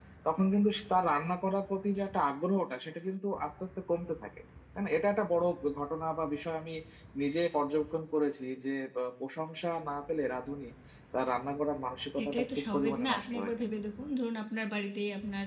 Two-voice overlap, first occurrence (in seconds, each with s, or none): 12.2 s